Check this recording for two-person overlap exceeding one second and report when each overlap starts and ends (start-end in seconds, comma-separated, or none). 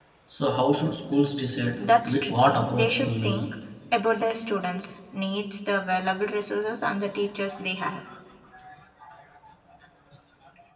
1.8-3.4